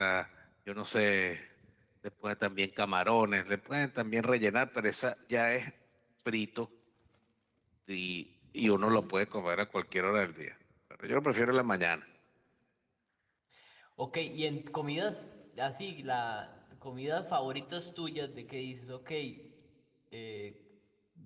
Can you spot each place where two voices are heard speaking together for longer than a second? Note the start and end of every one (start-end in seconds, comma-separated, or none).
none